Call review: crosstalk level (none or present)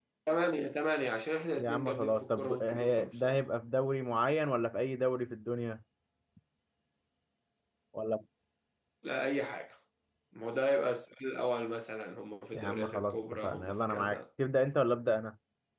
present